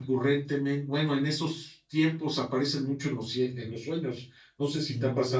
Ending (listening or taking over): taking over